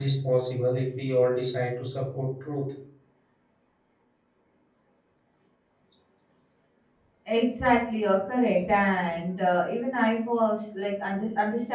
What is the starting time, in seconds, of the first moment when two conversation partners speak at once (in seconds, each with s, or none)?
none